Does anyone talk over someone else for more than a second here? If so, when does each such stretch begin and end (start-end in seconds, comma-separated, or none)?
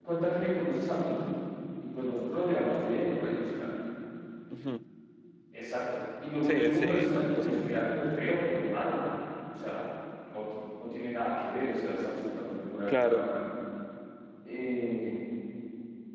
6.4-7.9